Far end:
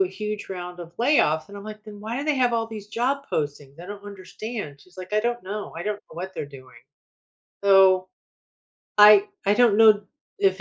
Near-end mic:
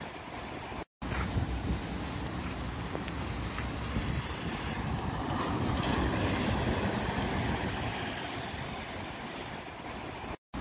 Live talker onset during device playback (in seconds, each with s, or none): none